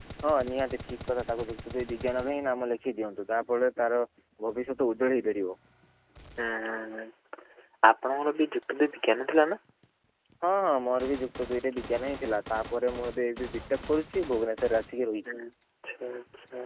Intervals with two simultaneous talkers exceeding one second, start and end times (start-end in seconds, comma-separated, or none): none